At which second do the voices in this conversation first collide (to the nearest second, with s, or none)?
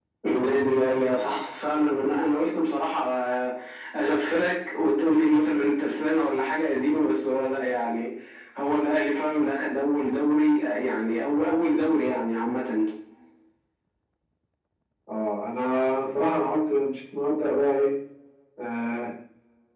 none